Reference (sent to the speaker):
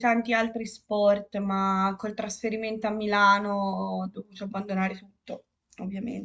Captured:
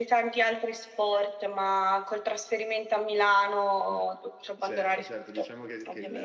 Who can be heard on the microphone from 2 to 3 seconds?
echo only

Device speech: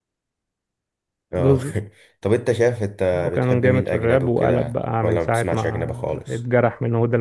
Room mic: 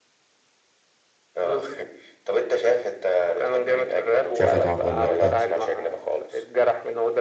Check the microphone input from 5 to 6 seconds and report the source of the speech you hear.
both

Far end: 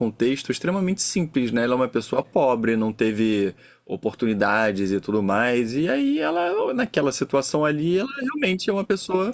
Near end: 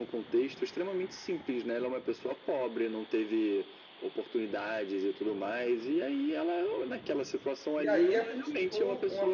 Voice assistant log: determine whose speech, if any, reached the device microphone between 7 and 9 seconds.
both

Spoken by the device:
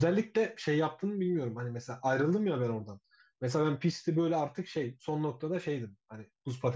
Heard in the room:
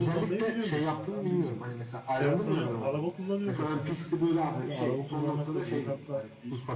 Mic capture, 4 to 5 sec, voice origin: both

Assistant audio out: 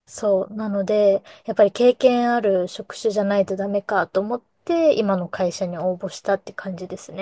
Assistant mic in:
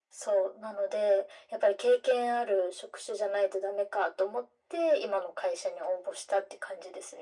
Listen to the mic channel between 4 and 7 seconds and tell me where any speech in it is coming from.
echo only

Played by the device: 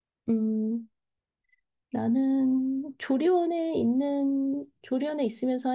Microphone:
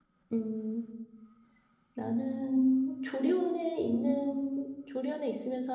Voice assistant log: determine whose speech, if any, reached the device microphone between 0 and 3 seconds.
echo only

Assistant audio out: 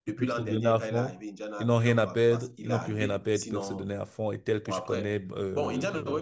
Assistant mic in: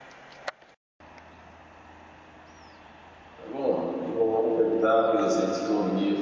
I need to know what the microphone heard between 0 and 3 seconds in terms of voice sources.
neither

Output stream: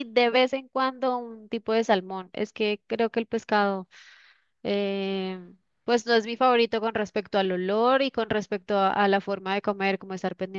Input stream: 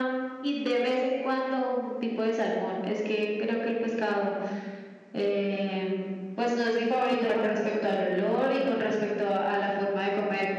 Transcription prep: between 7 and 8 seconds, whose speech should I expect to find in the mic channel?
both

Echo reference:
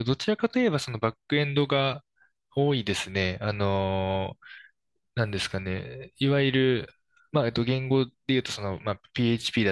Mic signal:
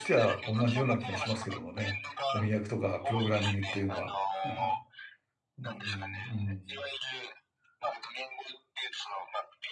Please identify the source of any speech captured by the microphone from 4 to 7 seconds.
both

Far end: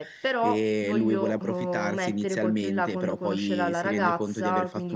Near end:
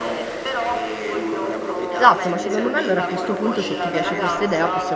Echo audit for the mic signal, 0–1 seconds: echo only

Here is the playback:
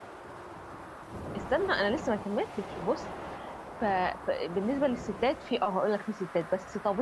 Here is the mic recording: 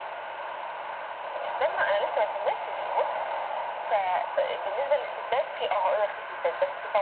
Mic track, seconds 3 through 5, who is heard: echo only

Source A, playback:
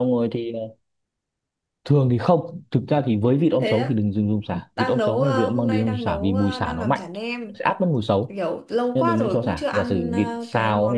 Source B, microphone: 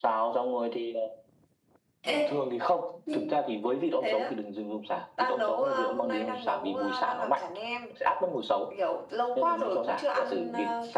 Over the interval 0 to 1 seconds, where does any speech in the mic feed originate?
echo only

